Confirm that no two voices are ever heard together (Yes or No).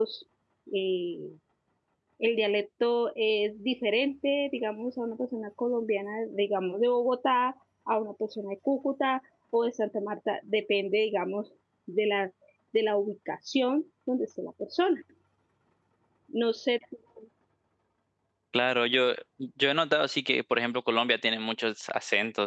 Yes